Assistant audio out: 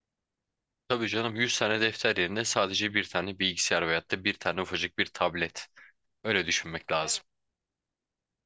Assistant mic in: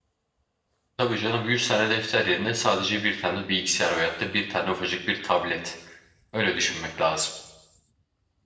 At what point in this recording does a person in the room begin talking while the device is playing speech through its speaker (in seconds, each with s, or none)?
none